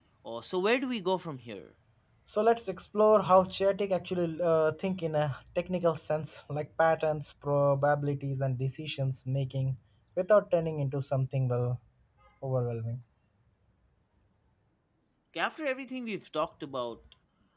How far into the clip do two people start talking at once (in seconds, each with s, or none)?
none